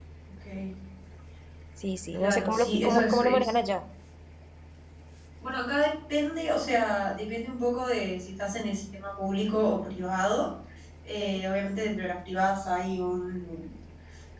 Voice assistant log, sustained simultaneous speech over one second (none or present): present